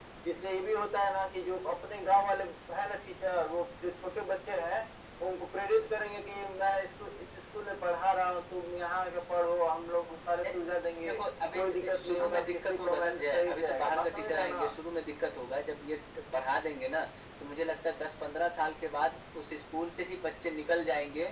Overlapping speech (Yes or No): Yes